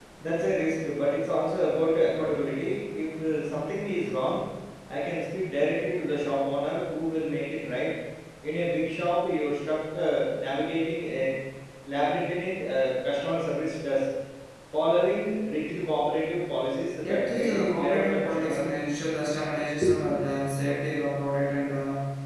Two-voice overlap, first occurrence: 17.0 s

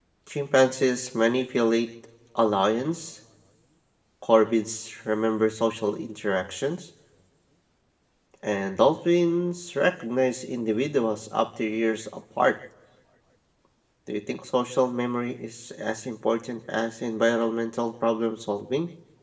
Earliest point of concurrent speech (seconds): none

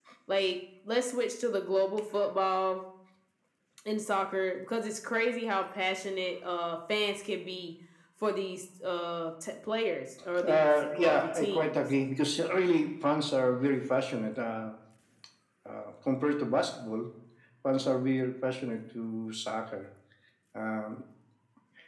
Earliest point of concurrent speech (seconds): 10.4 s

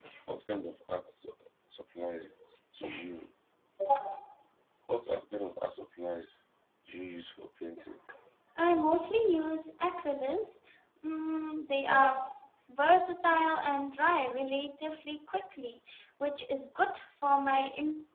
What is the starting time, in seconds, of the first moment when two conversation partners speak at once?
none

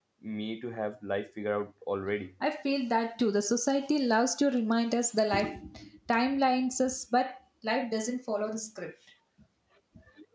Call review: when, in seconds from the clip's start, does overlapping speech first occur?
none

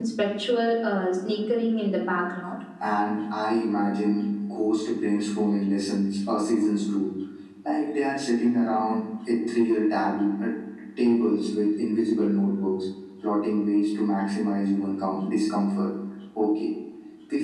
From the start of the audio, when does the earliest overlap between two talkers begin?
none

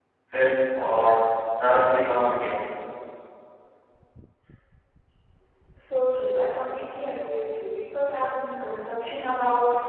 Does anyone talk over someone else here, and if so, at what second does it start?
none

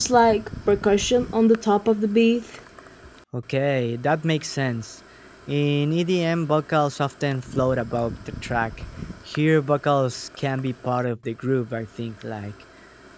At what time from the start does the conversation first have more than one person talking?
none

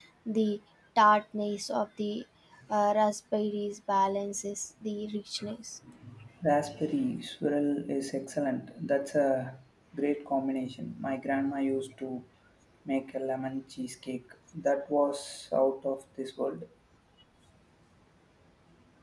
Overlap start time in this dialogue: none

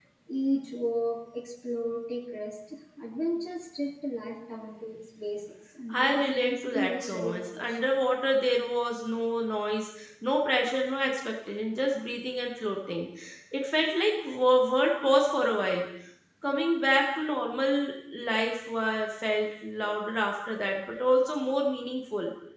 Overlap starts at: 5.9 s

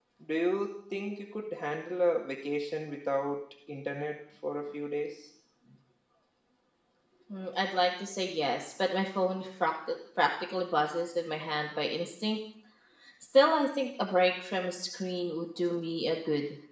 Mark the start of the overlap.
none

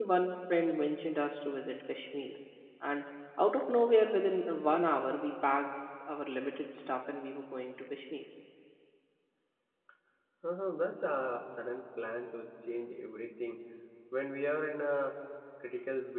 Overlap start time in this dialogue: none

